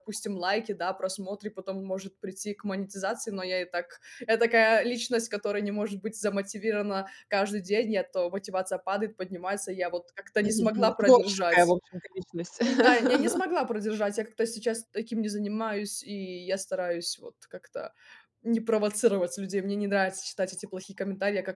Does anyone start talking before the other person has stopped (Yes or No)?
Yes